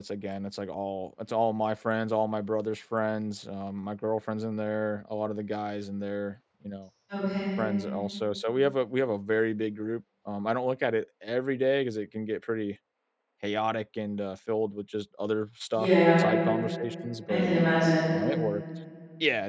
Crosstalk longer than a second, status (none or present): none